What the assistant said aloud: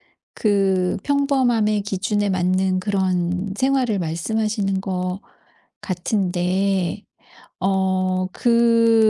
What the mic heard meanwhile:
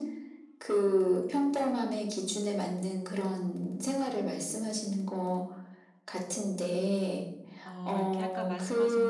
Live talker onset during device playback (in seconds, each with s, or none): 7.6 s